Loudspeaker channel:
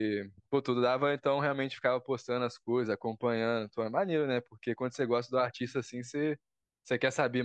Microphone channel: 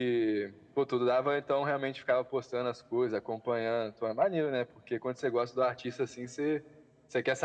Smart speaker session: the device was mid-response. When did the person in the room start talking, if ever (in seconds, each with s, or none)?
none